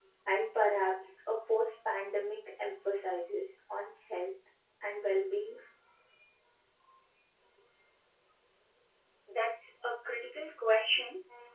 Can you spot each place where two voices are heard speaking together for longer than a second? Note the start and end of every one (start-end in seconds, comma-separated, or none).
none